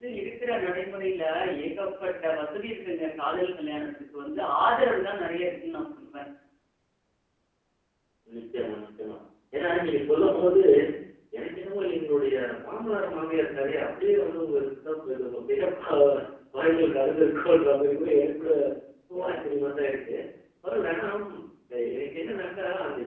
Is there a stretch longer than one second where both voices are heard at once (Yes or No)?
No